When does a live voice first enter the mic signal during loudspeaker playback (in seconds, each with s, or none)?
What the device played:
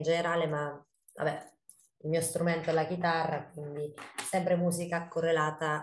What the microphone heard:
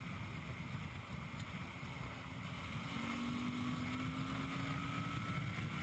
none